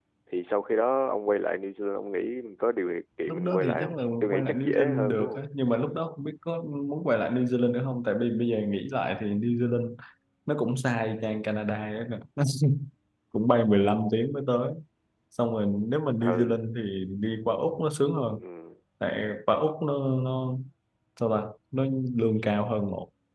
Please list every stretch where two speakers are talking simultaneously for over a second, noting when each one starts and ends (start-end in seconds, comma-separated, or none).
3.3-5.4